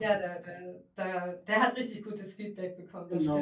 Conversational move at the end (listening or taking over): taking over